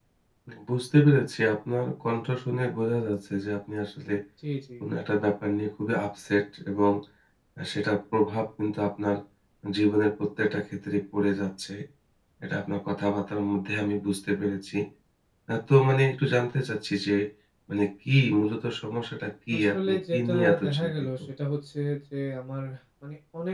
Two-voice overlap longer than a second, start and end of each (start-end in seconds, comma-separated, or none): 19.5-20.9